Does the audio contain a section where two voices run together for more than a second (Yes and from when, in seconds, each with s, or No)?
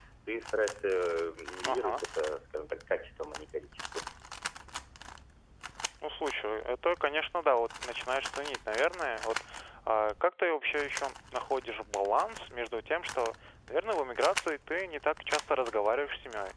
No